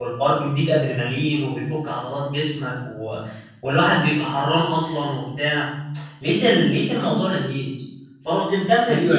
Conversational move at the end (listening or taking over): taking over